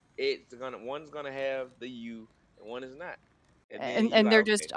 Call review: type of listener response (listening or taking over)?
taking over